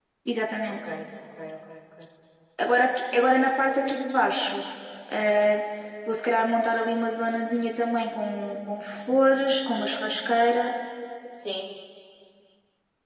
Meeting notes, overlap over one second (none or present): none